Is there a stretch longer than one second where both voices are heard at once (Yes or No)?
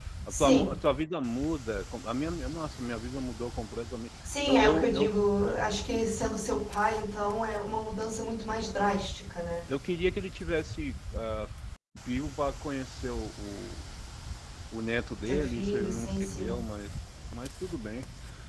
Yes